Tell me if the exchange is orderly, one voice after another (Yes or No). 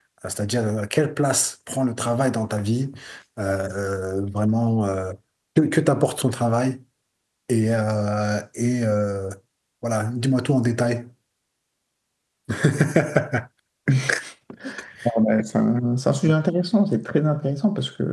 Yes